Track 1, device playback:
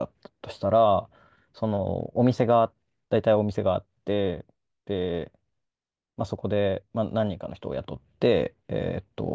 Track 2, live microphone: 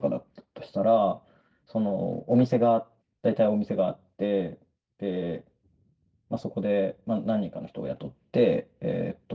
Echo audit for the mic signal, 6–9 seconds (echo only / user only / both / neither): echo only